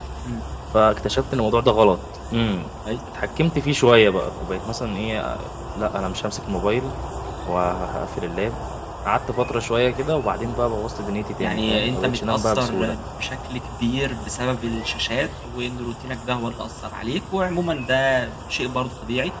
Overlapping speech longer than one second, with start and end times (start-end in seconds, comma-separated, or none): 11.4-12.9